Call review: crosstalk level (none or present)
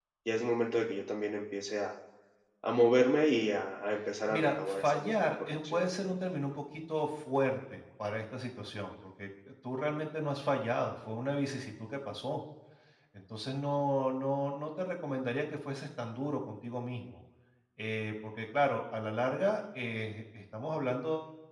present